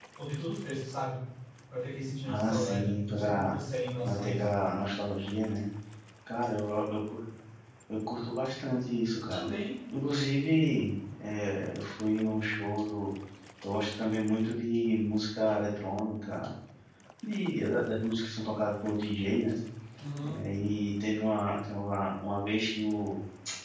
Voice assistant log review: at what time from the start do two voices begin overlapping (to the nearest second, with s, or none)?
2 s